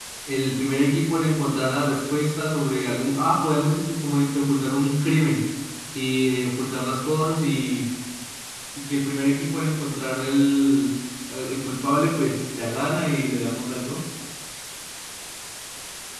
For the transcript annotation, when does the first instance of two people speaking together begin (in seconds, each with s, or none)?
none